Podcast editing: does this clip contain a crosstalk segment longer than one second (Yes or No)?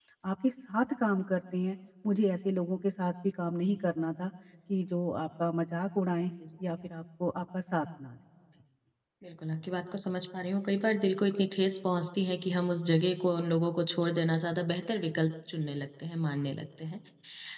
No